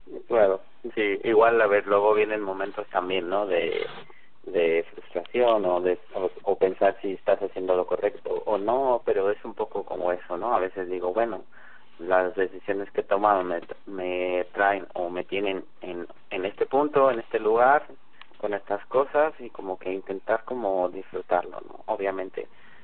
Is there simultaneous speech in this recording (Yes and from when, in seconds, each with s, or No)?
No